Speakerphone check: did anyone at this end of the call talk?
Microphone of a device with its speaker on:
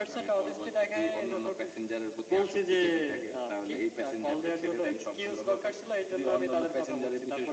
No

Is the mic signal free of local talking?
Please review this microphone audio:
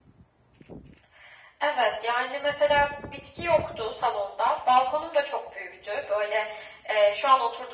Yes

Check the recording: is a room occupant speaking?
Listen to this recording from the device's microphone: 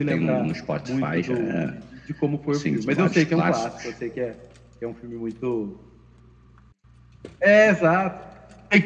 No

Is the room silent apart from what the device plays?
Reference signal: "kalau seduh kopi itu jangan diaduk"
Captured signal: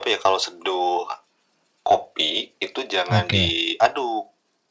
No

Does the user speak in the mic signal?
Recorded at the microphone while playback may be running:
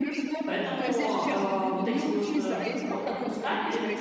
Yes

